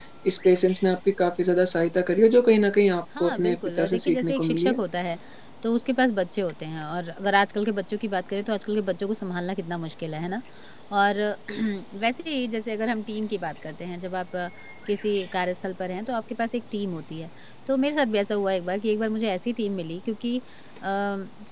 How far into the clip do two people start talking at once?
3.2 s

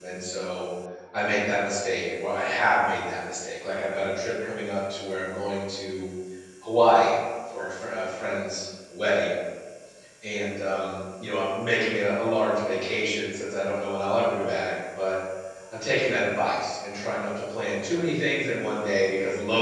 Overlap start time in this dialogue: none

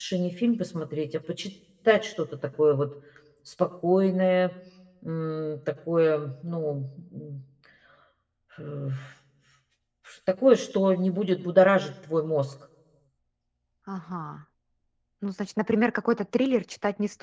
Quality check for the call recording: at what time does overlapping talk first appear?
none

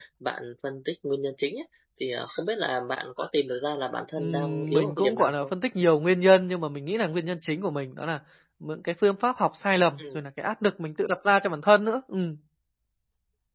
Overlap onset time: 4.2 s

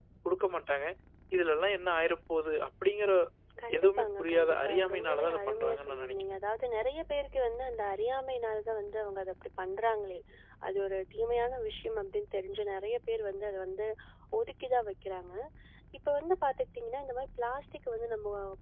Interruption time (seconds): 3.8 s

